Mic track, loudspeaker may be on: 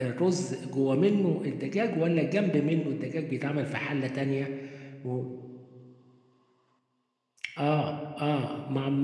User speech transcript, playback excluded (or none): none